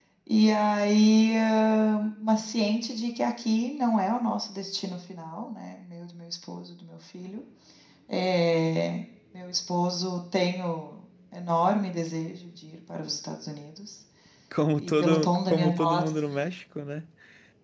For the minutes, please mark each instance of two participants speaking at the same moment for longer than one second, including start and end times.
14.8-16.0

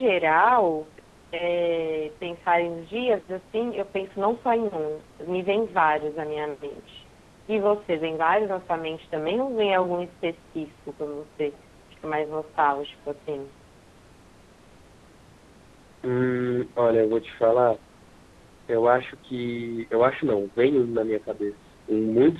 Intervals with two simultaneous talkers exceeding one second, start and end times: none

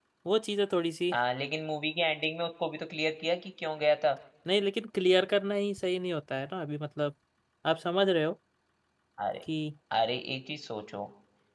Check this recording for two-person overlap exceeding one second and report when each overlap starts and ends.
none

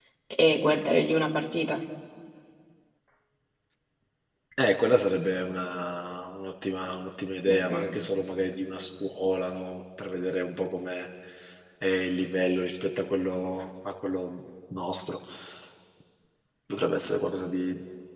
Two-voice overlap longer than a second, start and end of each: none

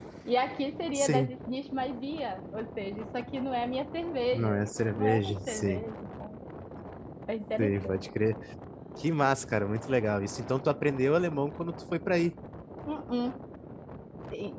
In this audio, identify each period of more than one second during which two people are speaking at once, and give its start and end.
4.3-5.8

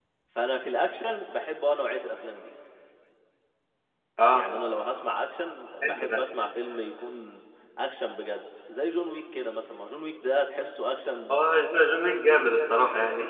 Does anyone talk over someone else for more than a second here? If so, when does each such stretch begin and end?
none

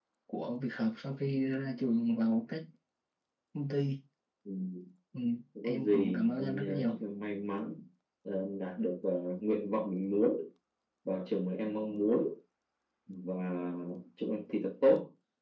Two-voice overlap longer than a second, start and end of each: 5.6-7.0

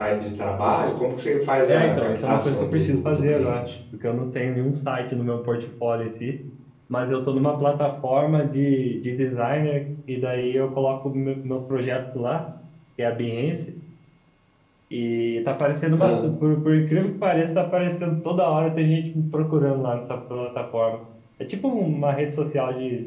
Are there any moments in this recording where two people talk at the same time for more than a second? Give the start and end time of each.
1.7-3.6

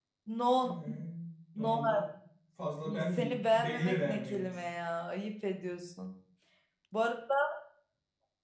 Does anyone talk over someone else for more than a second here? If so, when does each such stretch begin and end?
3.1-4.6

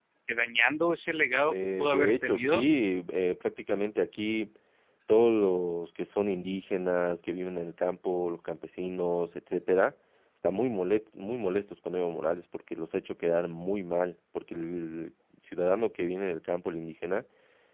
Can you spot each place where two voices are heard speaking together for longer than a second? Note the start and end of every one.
1.4-2.6

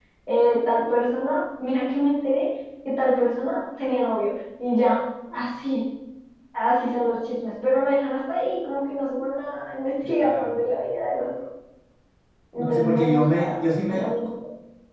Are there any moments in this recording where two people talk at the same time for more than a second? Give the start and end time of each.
12.6-14.1

